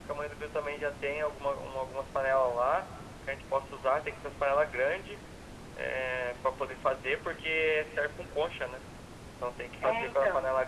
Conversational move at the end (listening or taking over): listening